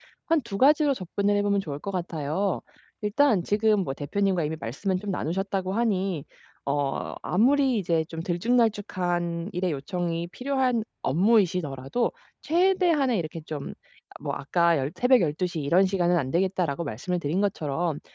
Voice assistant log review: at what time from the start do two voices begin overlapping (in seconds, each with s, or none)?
none